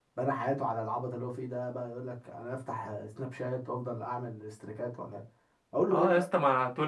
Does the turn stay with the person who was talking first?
No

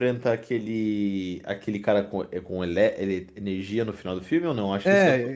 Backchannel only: No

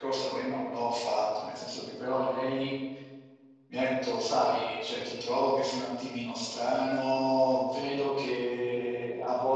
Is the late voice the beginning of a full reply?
No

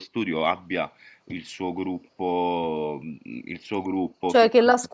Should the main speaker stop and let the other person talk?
Yes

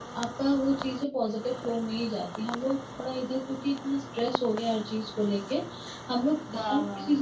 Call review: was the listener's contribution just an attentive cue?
Yes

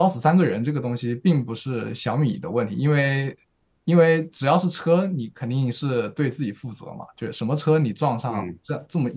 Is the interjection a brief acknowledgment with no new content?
Yes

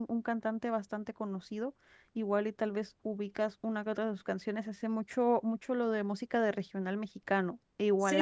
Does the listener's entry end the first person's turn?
Yes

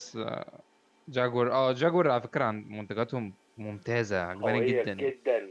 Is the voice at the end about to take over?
Yes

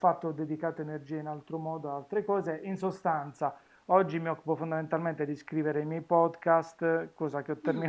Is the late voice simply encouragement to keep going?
Yes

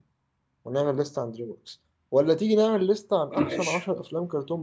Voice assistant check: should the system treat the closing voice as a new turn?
No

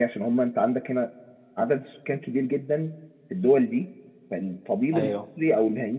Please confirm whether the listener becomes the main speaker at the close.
No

